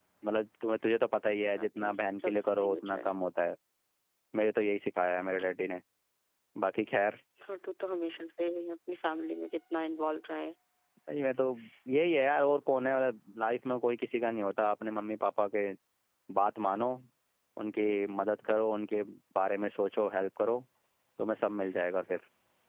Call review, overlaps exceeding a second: present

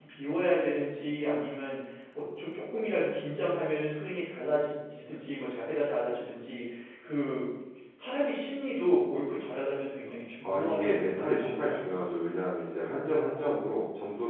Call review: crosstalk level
present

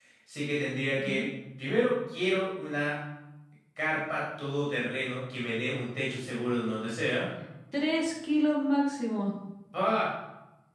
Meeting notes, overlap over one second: none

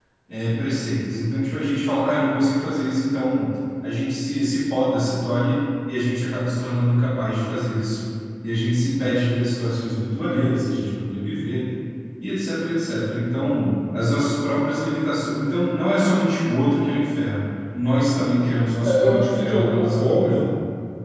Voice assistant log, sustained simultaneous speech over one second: present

